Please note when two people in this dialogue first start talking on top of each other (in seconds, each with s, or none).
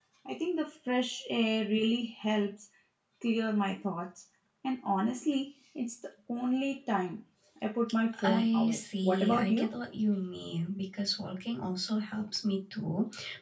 8.2 s